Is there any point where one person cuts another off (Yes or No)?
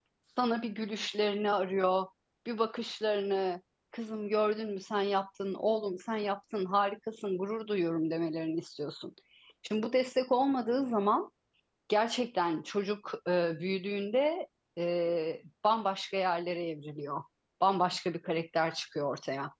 No